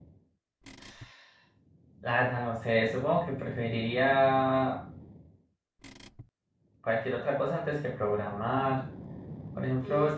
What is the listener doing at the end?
listening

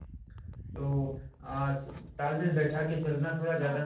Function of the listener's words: taking over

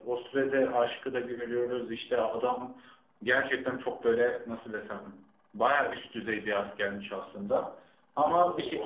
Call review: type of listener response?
taking over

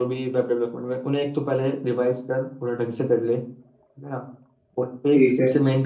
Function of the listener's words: listening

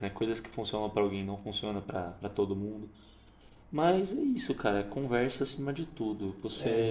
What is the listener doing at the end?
taking over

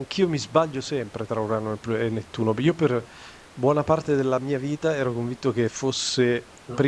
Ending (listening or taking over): listening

